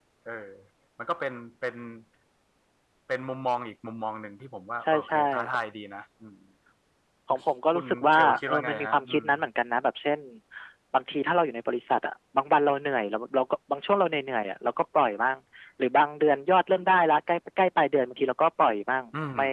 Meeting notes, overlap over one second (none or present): present